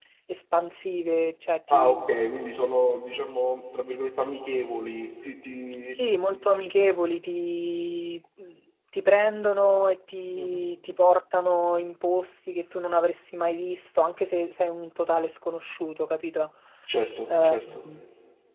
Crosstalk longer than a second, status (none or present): none